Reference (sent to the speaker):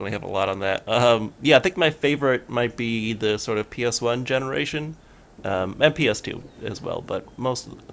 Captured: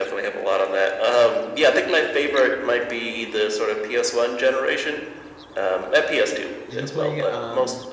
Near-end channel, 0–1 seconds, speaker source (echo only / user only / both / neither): echo only